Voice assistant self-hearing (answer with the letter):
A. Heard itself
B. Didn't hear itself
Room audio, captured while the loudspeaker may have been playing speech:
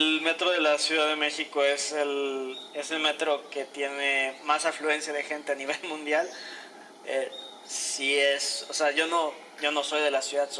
A